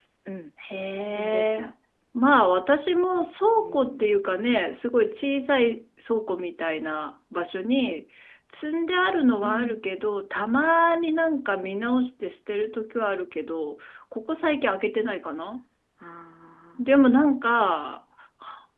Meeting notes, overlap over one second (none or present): none